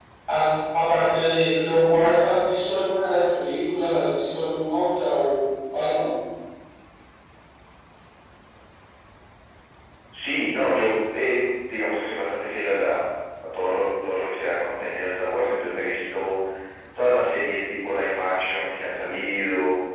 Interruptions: none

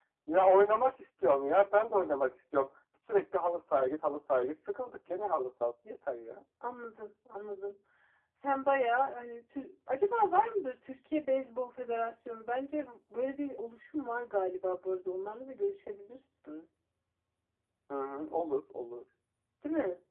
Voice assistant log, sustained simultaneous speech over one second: none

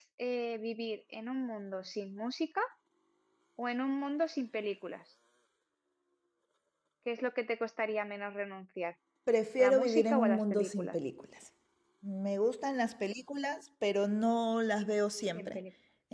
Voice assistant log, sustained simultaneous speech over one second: present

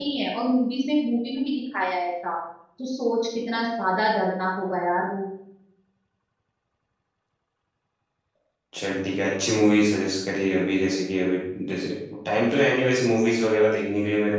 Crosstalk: none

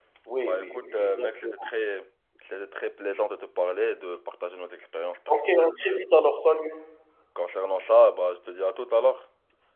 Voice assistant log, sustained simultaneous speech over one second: present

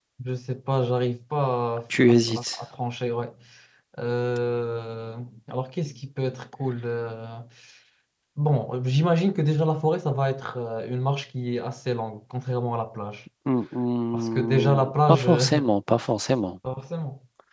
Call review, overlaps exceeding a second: present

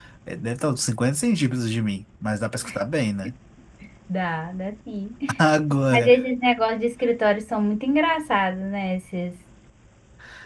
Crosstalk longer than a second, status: none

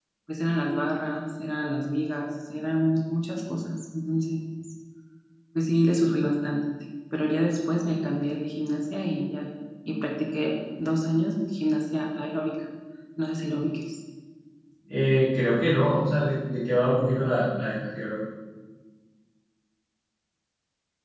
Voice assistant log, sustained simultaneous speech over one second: none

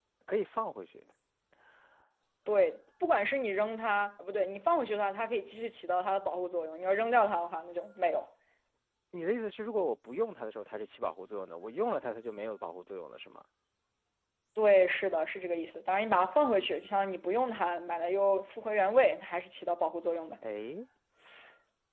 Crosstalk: none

